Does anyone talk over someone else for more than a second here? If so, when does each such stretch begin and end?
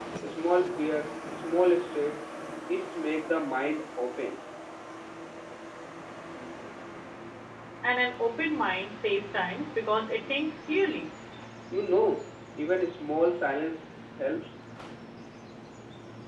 none

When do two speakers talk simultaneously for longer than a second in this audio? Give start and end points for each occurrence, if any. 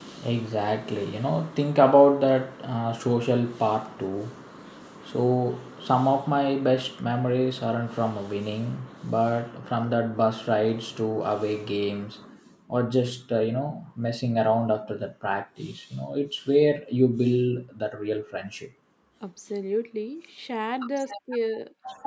none

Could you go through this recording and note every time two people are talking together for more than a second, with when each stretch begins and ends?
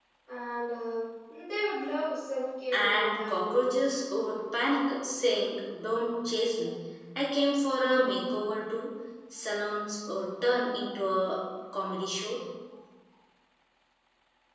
2.7-3.9

